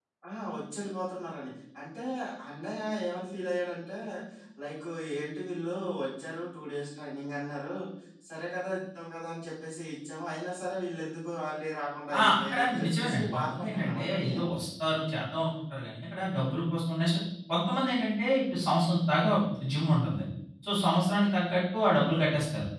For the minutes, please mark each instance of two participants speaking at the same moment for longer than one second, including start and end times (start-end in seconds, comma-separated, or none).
12.2-14.4